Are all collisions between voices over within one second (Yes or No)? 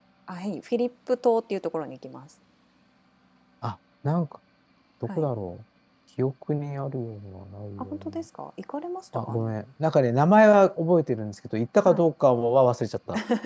Yes